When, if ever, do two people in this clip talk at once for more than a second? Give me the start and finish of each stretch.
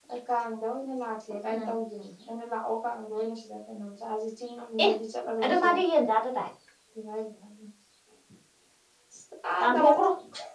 none

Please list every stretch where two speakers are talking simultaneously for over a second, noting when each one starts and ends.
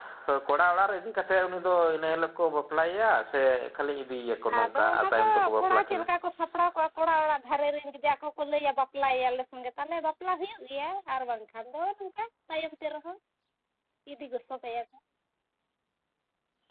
4.6-6.0

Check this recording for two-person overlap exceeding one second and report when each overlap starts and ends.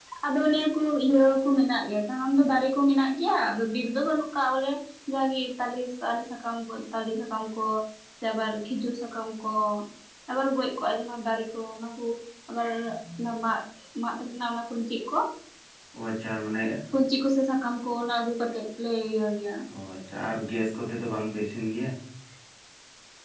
none

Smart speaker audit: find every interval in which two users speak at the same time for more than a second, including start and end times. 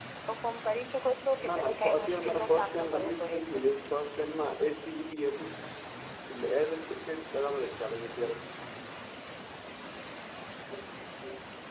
1.5-3.6

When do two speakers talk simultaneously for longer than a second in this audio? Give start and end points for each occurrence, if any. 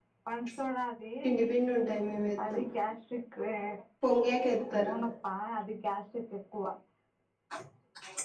none

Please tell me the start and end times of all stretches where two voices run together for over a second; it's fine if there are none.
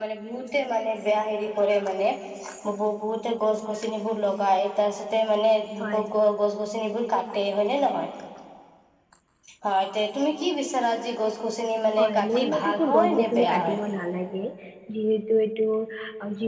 12.0-13.8

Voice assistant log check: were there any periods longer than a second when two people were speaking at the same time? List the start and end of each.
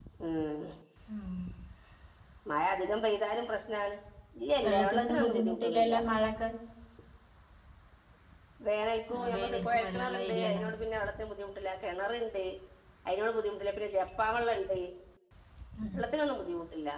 4.6-6.0, 9.3-10.6

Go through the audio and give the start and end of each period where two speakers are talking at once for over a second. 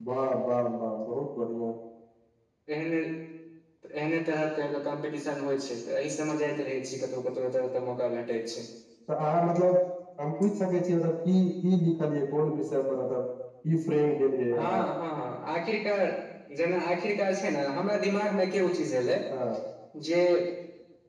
none

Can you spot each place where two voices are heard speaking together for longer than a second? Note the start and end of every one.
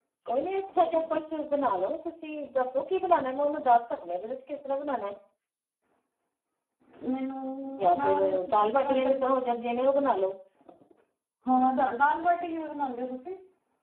8.0-9.3

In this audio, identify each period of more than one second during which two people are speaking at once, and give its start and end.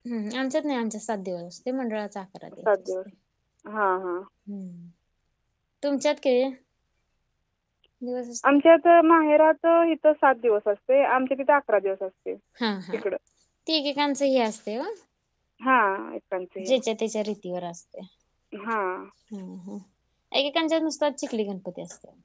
none

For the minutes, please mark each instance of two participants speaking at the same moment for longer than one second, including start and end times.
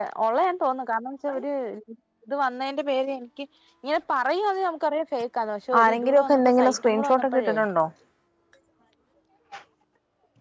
5.8-7.5

